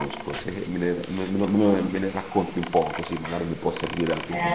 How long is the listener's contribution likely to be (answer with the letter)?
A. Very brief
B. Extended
B